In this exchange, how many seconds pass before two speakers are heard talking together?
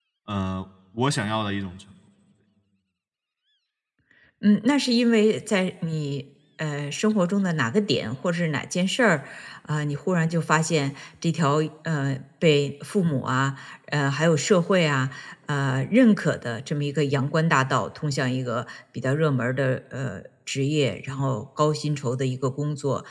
none

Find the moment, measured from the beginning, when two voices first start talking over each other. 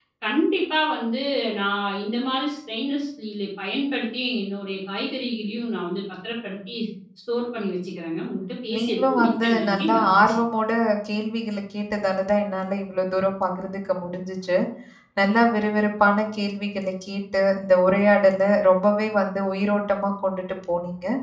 9 s

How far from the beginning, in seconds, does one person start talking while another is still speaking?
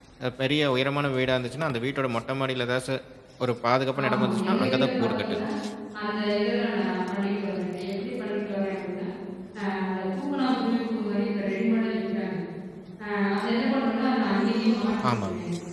4 s

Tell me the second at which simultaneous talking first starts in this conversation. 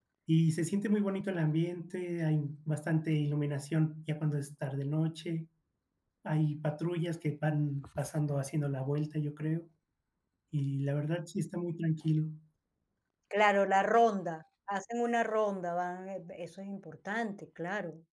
none

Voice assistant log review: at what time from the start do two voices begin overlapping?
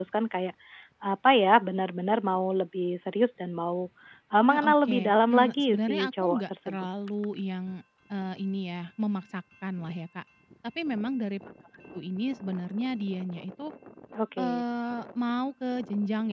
4 s

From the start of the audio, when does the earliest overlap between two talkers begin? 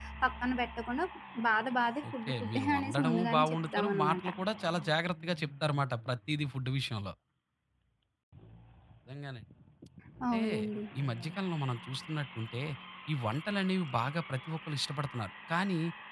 2 s

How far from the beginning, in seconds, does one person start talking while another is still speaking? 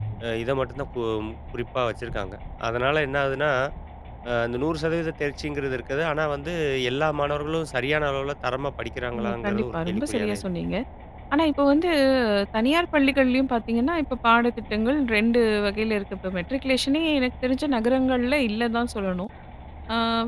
9 s

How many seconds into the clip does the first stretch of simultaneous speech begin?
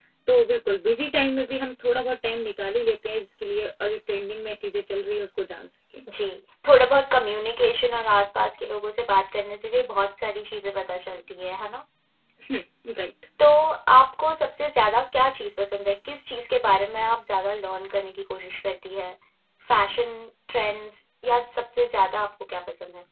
none

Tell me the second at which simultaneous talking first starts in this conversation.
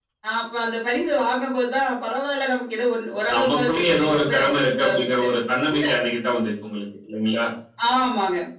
3 s

